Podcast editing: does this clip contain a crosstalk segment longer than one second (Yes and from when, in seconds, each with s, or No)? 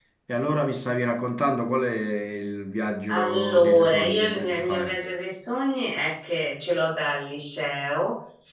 Yes, from 3.1 s